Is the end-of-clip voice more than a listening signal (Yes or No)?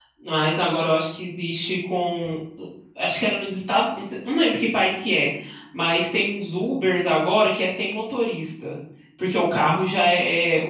No